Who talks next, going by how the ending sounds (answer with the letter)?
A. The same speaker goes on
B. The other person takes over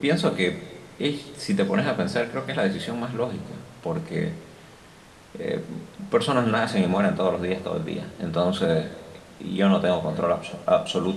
A